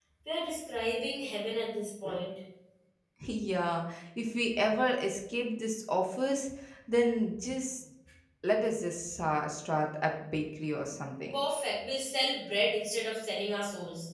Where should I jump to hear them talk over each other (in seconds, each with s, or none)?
none